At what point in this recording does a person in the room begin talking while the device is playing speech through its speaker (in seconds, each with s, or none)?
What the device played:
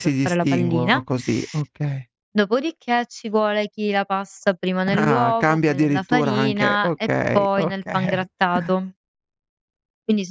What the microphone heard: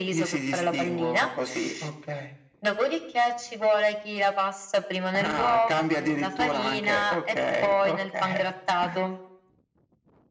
none